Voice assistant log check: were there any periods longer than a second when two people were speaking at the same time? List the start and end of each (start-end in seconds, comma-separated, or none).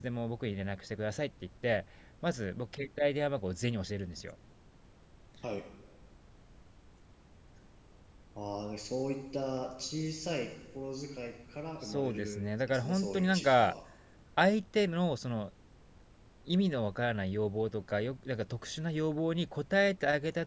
11.8-13.8